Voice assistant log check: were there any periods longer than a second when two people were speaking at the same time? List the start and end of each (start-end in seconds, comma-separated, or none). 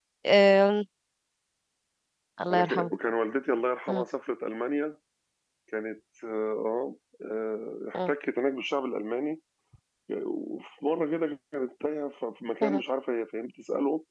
none